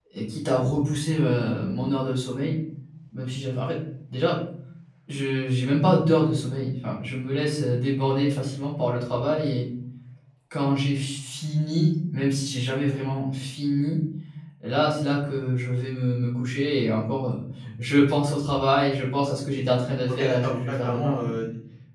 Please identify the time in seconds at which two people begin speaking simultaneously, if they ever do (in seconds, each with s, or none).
20.1 s